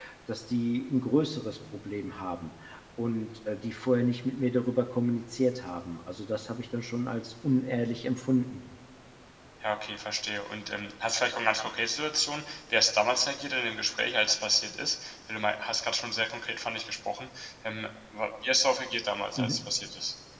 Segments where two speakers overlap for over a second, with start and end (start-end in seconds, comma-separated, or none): none